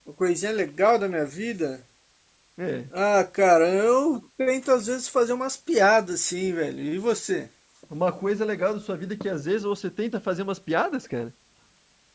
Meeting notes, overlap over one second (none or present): none